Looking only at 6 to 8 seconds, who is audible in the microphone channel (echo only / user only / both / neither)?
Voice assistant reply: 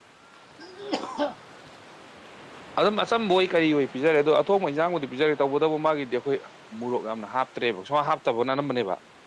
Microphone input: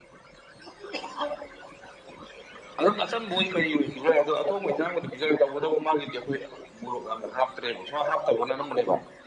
echo only